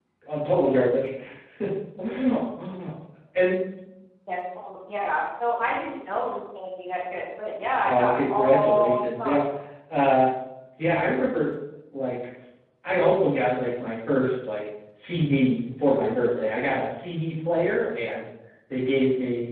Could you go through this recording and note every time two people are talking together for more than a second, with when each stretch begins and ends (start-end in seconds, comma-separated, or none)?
7.8-9.4